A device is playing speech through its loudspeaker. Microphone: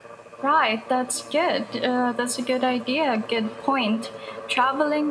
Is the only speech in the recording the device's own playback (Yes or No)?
No